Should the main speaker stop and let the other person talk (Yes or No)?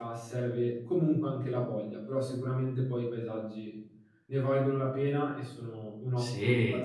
Yes